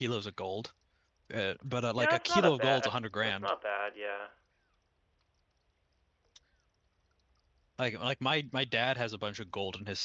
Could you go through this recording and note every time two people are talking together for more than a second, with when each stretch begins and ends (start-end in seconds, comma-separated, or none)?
2.0-3.5